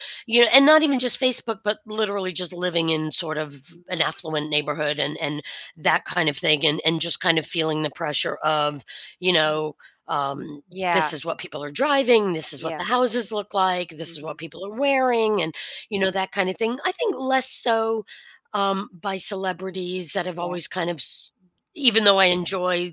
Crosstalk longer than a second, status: none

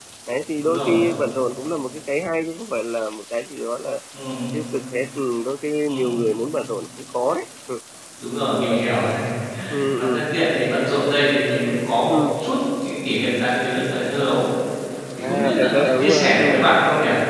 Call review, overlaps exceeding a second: present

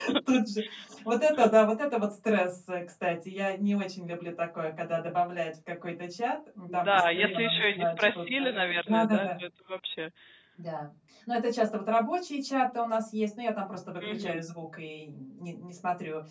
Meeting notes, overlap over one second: present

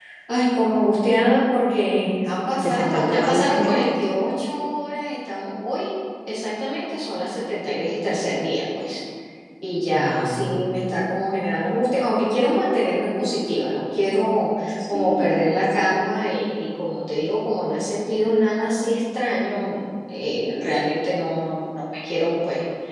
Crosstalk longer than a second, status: present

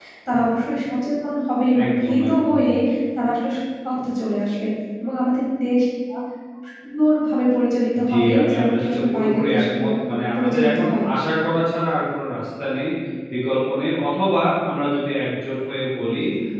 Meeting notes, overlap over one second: present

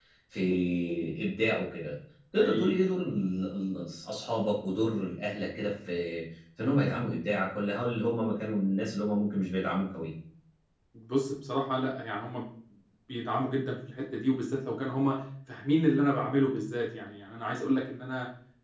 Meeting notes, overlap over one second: none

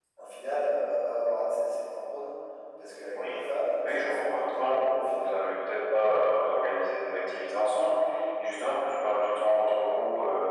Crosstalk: present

